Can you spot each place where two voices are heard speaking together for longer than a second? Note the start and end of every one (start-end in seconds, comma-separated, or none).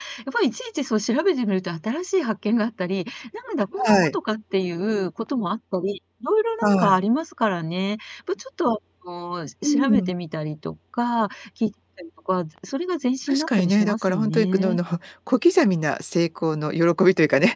13.3-14.8